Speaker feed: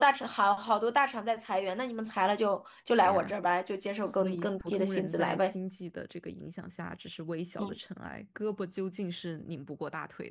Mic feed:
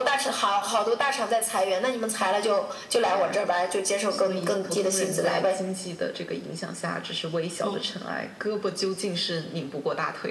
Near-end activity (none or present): none